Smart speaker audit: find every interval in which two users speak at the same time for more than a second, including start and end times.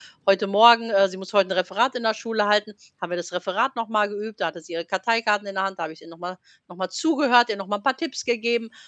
none

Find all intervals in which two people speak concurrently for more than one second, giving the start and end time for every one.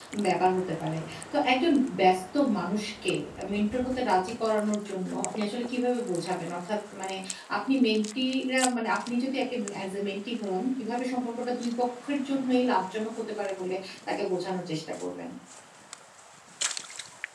none

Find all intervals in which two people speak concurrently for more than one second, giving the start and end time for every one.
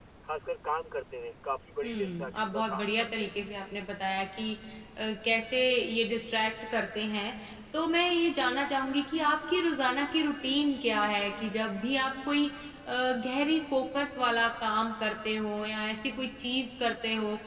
1.8-3.3

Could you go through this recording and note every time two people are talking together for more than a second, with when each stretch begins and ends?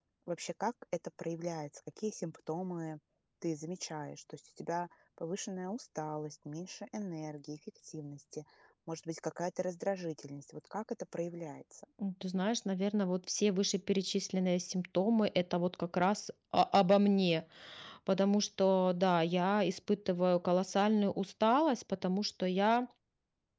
none

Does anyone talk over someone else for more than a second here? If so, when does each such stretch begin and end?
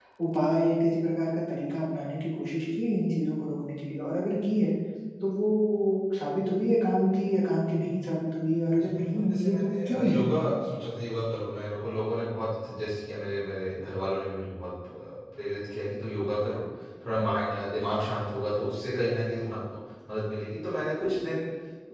8.7-10.3

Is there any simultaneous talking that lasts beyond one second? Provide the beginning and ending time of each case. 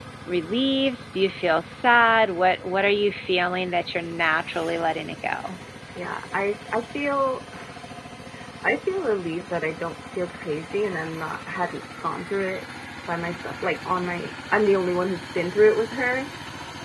none

